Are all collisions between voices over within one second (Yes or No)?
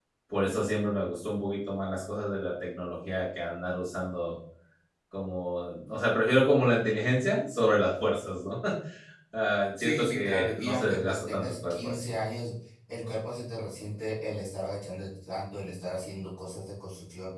No